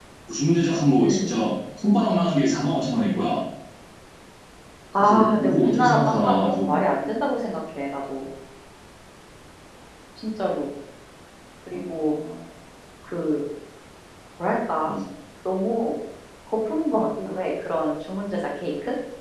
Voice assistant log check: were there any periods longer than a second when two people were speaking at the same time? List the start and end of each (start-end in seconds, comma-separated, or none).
4.9-6.8